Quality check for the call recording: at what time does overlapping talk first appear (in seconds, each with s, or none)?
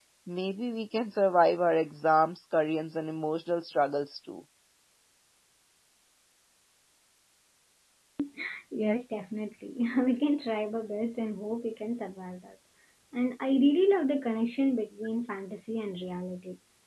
none